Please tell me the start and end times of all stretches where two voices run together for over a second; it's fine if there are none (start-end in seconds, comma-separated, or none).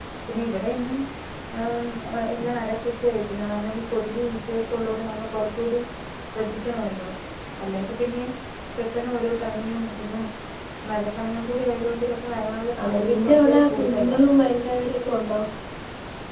12.8-14.2